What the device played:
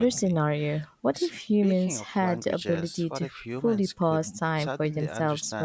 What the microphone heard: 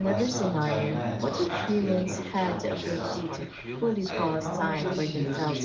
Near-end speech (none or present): present